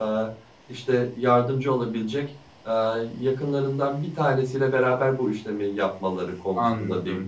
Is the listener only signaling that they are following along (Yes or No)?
No